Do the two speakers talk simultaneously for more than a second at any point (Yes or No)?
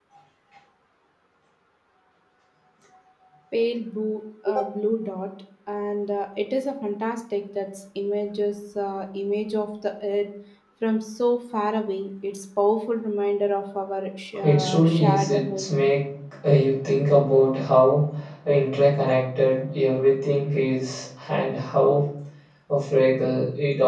Yes